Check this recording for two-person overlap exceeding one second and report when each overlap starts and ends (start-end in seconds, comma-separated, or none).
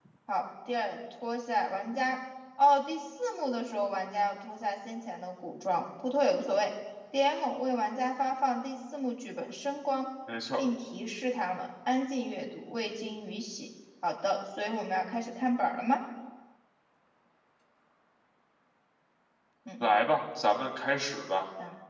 none